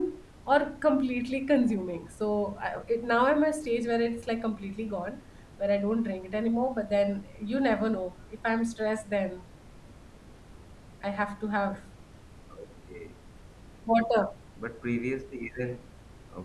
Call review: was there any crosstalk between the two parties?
No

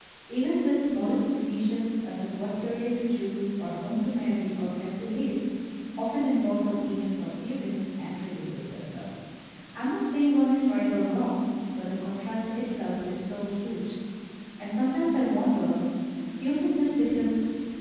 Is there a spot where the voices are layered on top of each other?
No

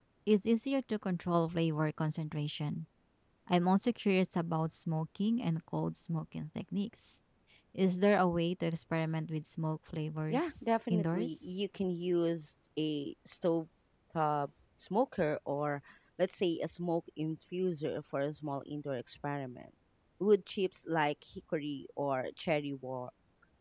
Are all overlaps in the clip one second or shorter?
No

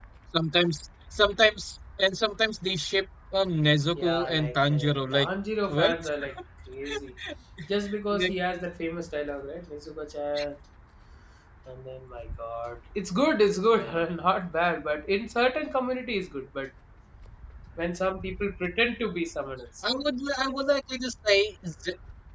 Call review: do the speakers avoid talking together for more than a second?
No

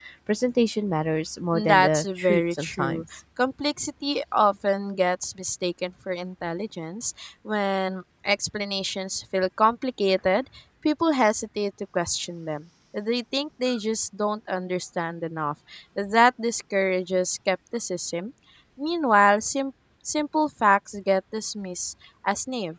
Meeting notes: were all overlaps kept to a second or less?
No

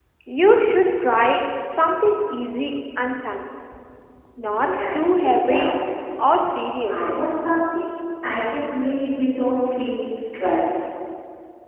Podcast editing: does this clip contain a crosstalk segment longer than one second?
Yes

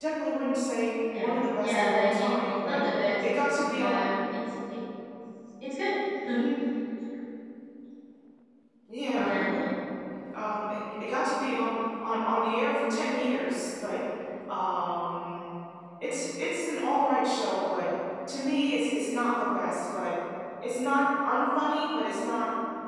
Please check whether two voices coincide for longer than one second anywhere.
Yes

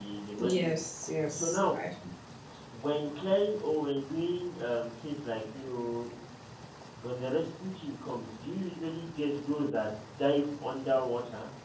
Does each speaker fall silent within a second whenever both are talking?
Yes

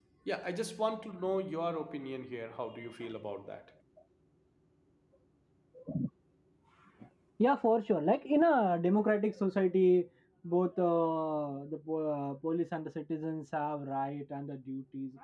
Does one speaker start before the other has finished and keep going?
No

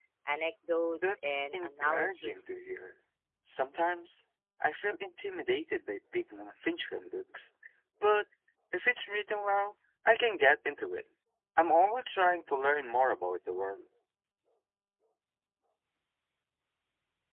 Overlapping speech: Yes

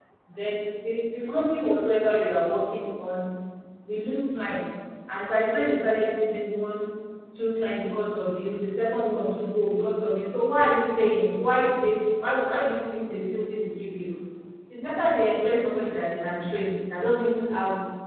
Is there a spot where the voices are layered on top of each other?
No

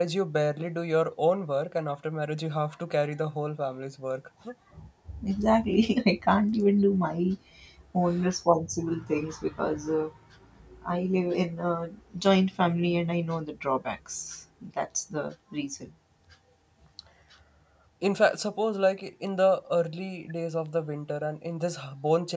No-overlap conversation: Yes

